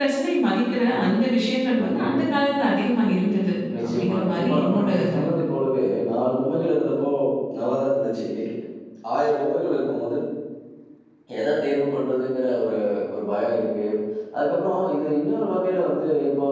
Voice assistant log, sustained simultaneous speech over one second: present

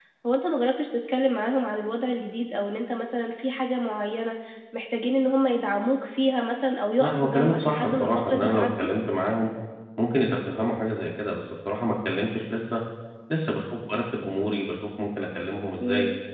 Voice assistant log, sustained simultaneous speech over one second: present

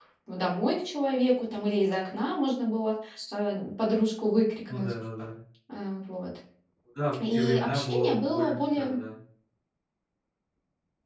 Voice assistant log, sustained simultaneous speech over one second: present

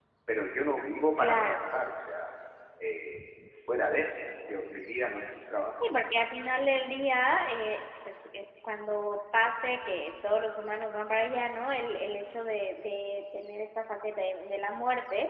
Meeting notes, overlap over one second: none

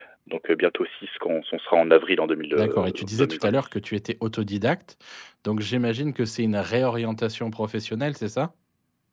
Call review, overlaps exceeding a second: present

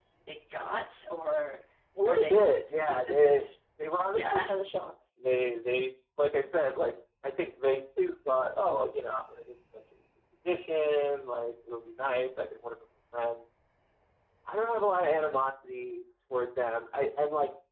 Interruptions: present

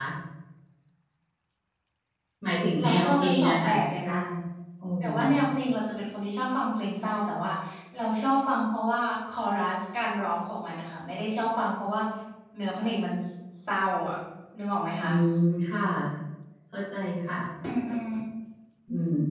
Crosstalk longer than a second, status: present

